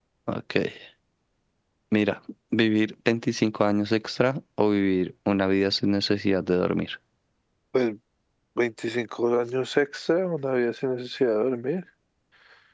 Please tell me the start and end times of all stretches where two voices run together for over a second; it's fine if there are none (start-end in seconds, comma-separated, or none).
none